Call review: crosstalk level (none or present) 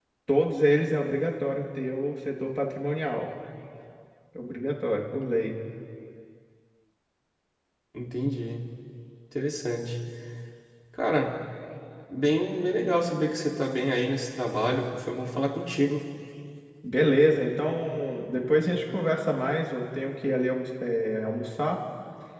none